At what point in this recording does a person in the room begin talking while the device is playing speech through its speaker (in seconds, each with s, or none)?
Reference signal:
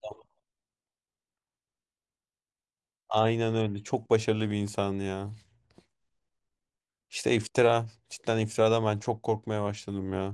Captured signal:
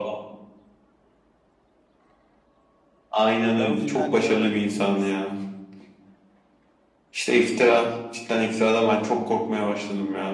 3.6 s